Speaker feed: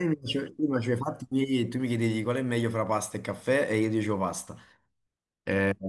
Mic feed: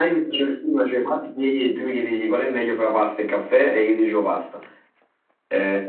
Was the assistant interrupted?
No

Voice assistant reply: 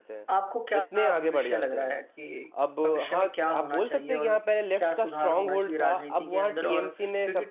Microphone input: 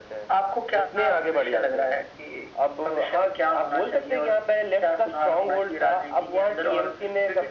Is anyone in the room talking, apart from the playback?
No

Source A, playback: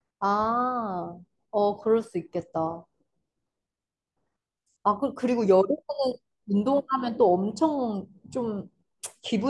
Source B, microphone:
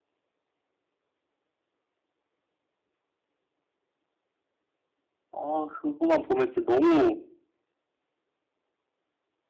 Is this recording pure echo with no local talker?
No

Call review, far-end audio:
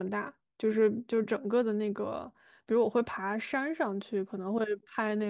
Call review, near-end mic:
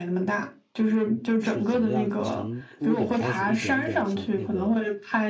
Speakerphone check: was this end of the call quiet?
No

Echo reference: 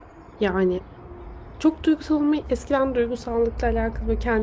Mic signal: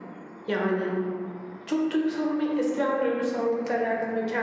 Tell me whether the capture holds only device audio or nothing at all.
Yes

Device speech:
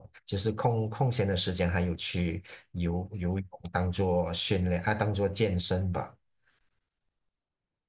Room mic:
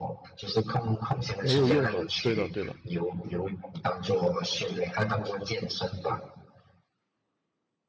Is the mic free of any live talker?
No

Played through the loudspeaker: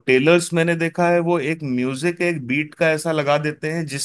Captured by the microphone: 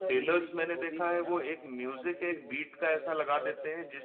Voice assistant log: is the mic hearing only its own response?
No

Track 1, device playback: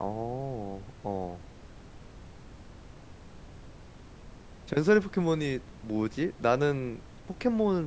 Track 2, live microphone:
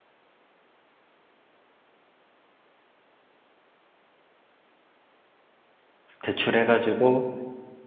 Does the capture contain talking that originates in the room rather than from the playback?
Yes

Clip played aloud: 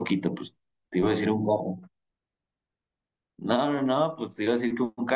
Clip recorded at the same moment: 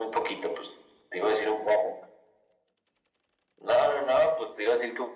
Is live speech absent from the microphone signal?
Yes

